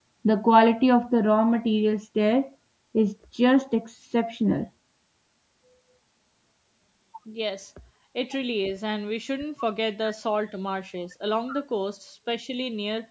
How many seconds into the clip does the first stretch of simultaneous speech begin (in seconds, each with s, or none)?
none